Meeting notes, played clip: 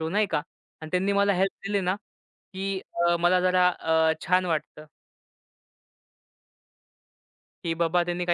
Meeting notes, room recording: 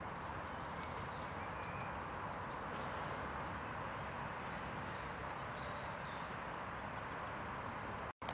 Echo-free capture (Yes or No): Yes